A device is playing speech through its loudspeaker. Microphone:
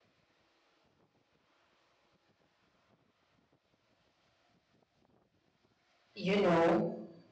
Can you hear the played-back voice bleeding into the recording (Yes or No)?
No